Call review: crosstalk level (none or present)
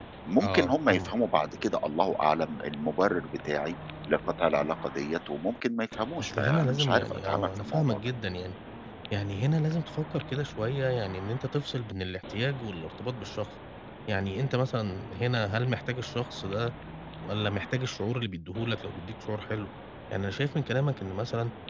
present